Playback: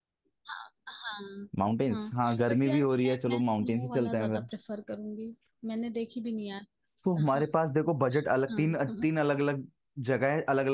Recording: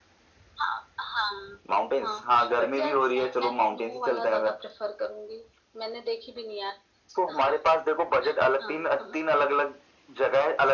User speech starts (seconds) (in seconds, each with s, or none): none